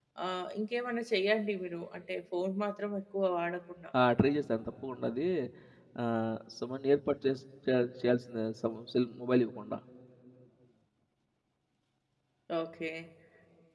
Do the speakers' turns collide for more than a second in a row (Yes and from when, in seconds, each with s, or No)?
No